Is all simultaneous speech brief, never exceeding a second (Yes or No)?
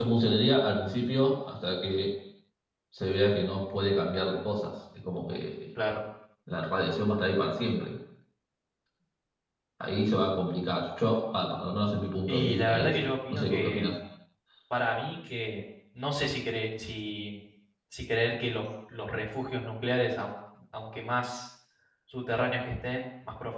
No